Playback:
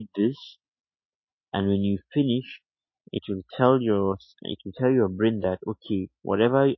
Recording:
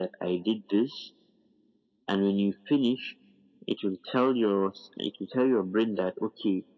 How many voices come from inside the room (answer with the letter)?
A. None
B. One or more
A